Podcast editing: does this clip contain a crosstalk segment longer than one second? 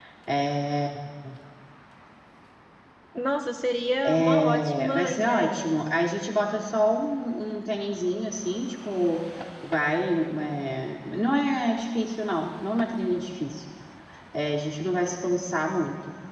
Yes, from 4.0 s

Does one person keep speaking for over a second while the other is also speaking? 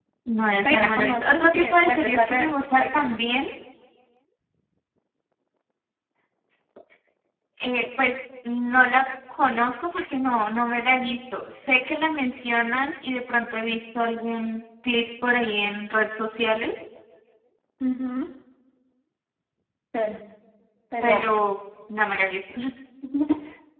Yes, from 0.6 s

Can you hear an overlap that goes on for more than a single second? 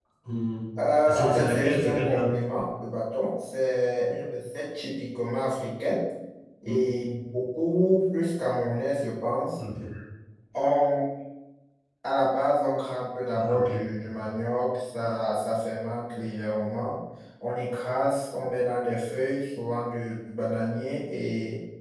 Yes, from 1.0 s

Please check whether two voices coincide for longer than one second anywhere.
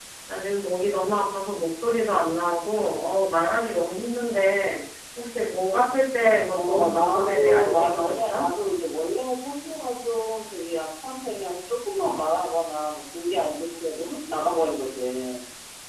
Yes, from 6.5 s

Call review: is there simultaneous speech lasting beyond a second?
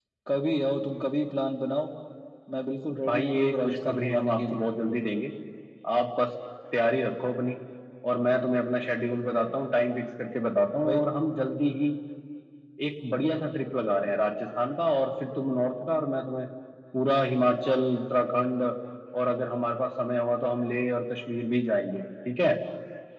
Yes, from 3.1 s

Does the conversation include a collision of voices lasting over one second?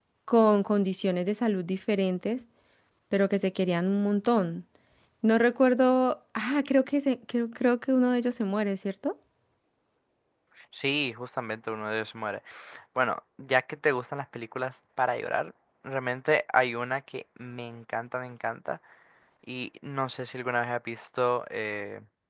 No

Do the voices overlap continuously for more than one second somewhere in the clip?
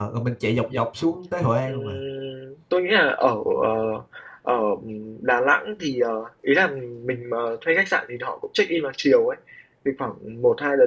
No

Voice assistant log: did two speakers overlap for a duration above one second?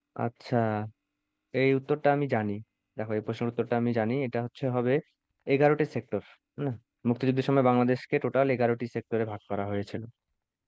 No

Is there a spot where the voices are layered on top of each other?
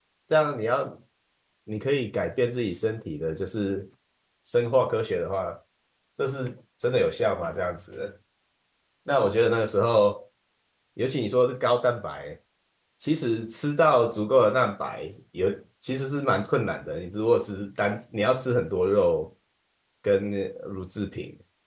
No

